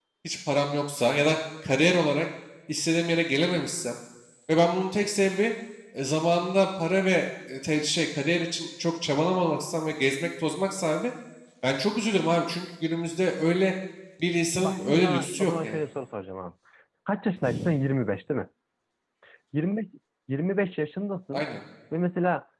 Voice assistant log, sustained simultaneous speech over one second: present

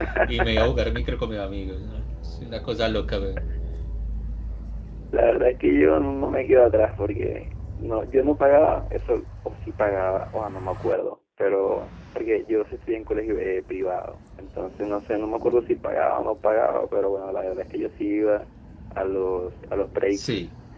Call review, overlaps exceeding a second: none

